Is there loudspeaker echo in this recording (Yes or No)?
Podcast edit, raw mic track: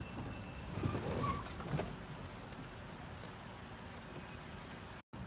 No